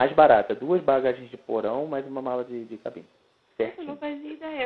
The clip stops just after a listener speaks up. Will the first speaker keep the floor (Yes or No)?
No